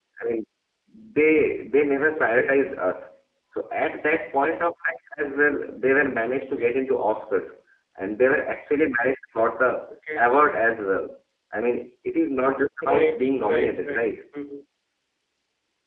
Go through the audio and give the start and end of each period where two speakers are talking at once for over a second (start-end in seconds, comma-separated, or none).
12.8-14.1